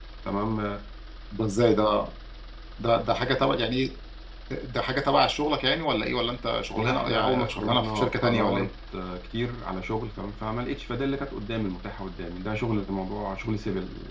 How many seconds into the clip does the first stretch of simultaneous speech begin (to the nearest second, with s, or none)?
7 s